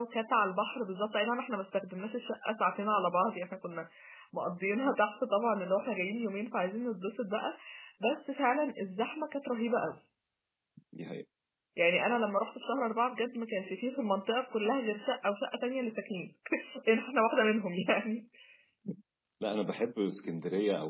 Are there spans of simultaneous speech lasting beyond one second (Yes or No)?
No